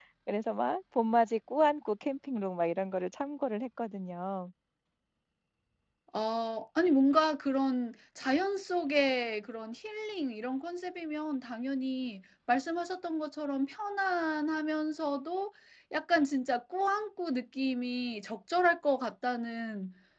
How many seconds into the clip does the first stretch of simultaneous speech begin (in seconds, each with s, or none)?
none